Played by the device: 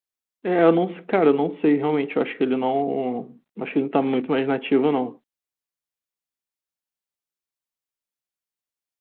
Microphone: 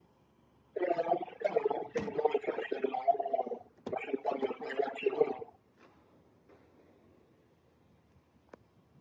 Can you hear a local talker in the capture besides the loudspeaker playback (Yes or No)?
No